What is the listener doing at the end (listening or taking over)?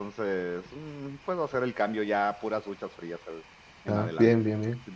taking over